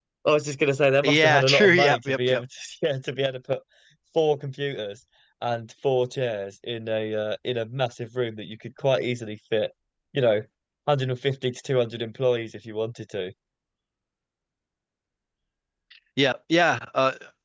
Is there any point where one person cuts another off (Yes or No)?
Yes